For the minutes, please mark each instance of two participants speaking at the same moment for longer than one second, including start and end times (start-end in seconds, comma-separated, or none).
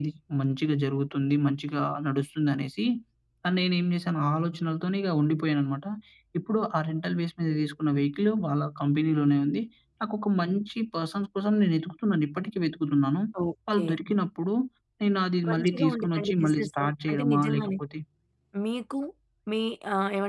15.5-17.7